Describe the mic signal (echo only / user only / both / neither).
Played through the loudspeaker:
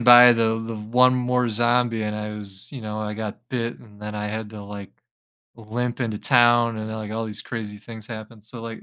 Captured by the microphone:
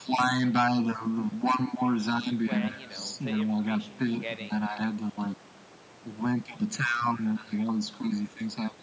both